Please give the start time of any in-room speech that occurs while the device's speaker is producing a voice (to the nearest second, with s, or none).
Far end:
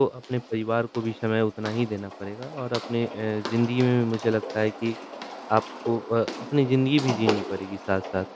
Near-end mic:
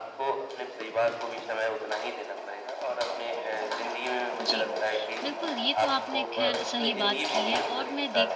4 s